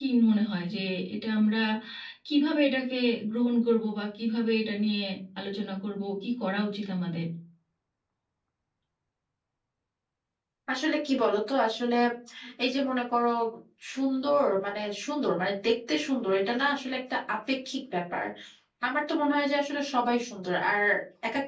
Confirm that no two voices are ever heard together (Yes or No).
Yes